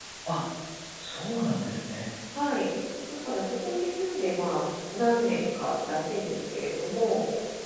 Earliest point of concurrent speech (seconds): none

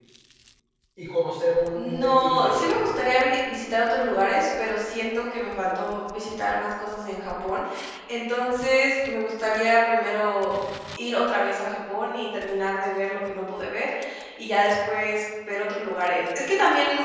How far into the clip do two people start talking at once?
1.7 s

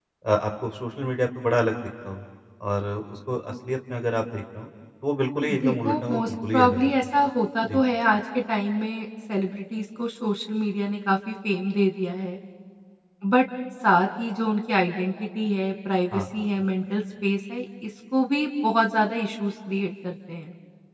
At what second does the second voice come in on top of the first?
5.5 s

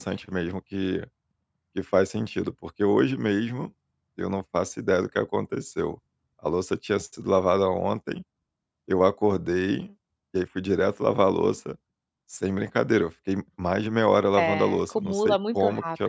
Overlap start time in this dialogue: 14.4 s

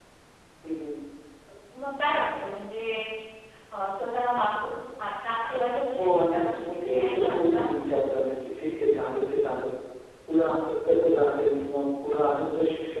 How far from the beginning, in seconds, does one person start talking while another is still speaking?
5.9 s

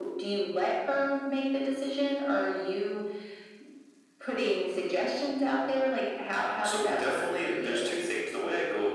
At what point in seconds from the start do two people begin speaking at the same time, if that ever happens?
6.4 s

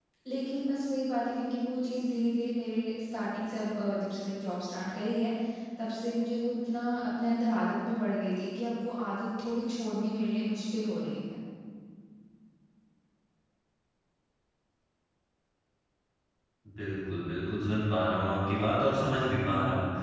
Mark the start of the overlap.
none

